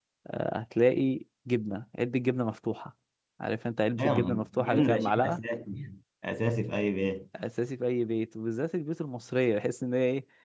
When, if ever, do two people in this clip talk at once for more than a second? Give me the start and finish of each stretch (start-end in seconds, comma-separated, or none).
4.0-5.4